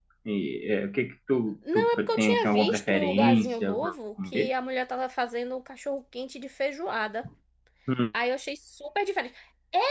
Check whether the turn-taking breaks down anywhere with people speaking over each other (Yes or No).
Yes